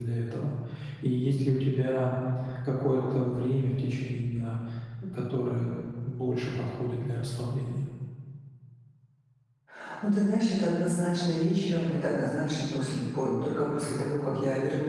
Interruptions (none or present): none